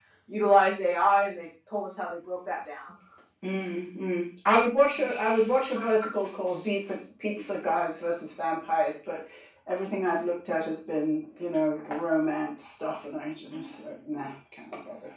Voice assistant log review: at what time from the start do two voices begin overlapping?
none

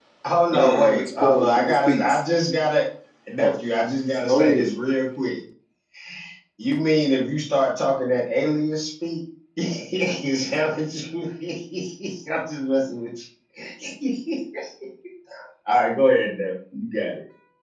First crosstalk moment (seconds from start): 0.5 s

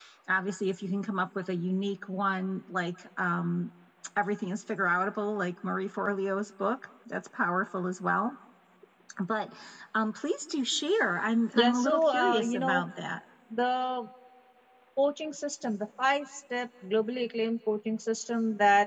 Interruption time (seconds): 11.5 s

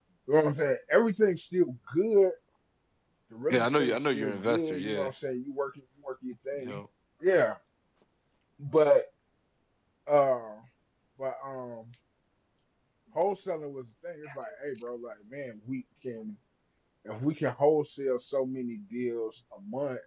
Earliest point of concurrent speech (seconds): 3.5 s

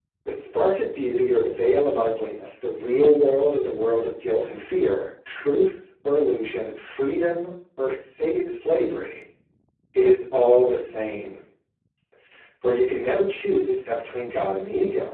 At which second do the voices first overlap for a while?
none

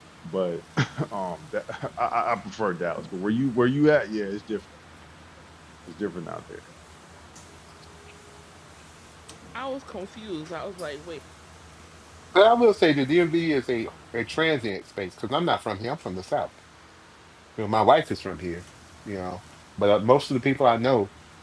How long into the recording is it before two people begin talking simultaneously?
none

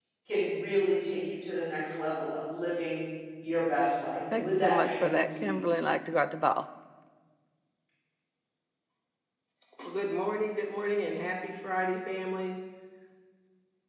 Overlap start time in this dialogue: 4.3 s

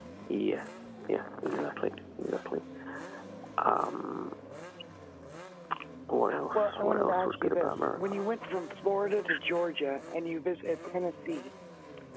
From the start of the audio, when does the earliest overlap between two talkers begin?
6.5 s

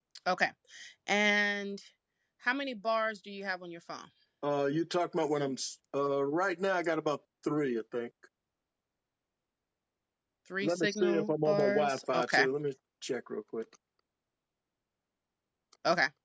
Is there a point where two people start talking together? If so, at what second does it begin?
10.6 s

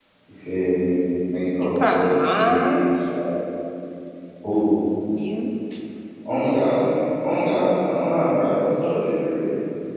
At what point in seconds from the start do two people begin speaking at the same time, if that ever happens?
1.6 s

